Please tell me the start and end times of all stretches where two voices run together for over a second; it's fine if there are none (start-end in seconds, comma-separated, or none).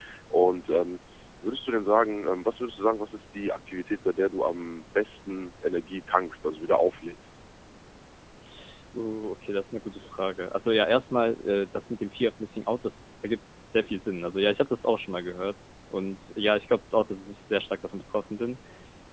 none